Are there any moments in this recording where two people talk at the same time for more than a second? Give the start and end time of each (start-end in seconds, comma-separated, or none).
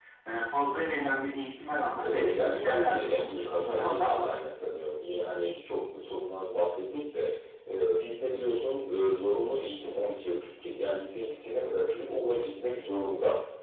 2.0-4.3